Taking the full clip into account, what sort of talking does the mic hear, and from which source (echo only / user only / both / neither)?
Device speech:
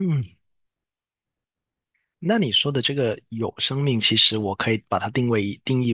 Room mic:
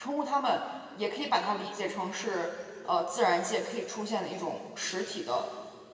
user only